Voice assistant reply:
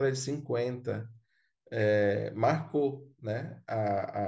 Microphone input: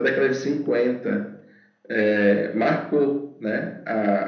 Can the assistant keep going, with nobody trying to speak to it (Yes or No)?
Yes